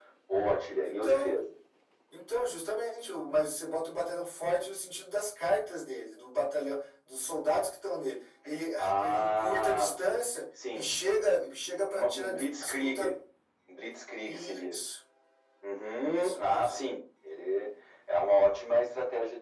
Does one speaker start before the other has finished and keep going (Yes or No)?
Yes